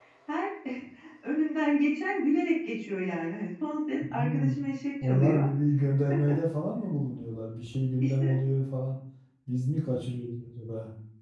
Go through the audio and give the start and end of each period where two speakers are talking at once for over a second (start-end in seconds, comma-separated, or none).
none